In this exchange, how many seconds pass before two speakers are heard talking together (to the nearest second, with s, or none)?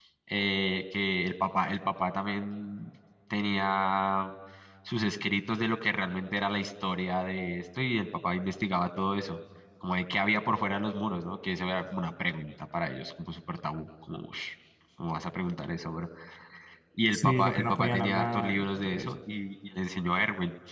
17 s